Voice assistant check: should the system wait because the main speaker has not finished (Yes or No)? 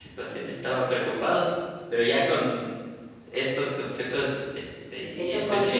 No